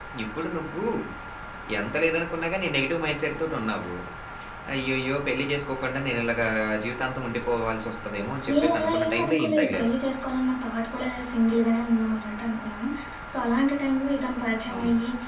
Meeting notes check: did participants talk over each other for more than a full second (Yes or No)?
Yes